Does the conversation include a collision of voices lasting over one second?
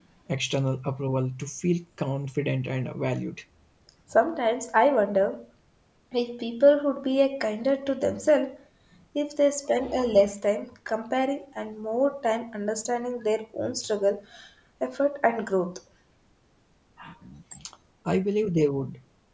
No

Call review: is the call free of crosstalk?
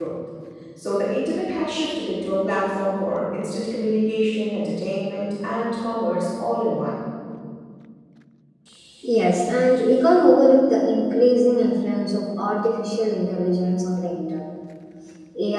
Yes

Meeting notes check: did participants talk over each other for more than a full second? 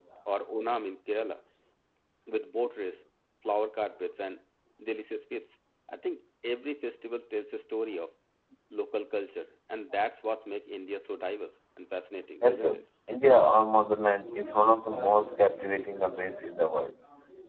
No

